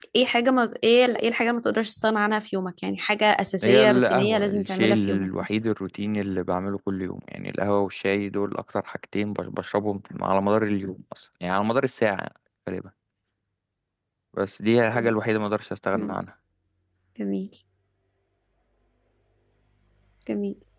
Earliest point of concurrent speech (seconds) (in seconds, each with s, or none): 3.6 s